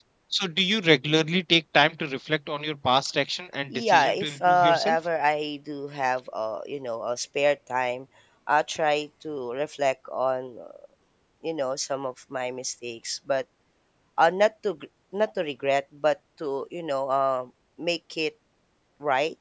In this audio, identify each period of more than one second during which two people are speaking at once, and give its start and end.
3.7-5.0

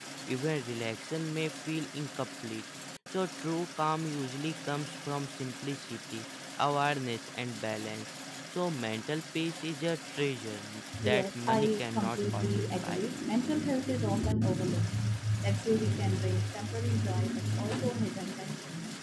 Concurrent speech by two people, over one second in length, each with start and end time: 11.0-13.0

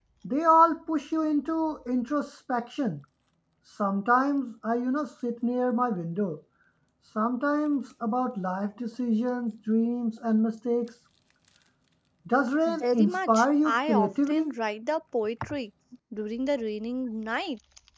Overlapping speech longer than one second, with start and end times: 12.7-14.5

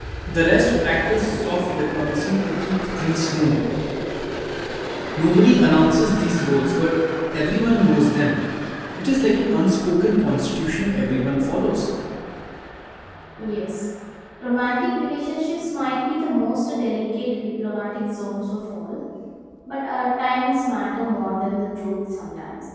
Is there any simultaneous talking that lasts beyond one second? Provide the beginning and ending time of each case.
none

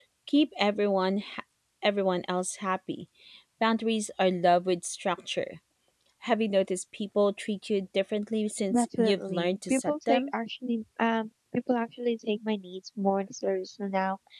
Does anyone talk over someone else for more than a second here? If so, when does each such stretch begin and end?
8.7-10.3

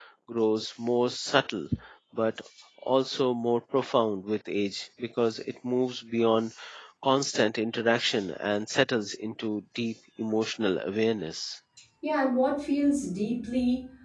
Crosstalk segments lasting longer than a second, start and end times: none

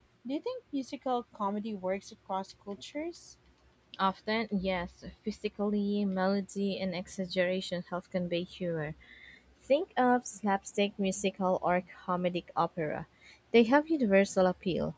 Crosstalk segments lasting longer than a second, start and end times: none

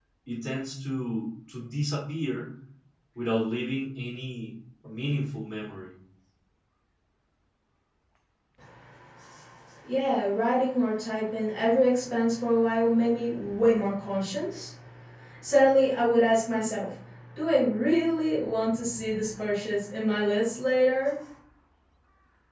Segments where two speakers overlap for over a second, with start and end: none

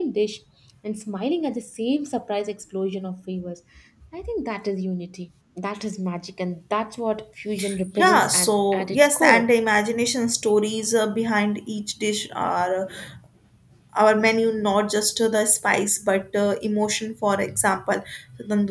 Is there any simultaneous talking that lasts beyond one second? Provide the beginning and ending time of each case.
8.0-9.5

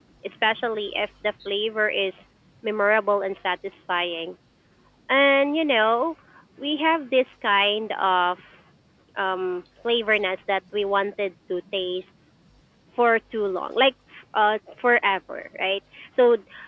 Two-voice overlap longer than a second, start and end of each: none

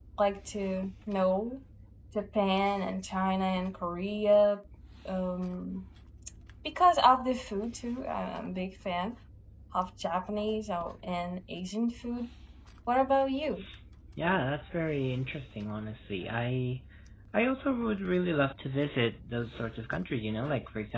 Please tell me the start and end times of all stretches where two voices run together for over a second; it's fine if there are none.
none

